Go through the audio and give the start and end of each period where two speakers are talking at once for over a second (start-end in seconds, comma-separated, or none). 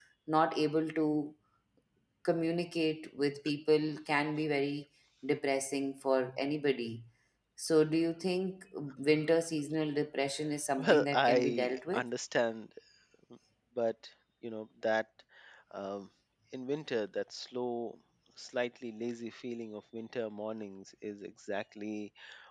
10.8-12.0